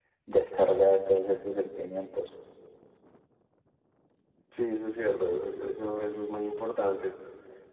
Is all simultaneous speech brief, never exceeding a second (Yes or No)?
Yes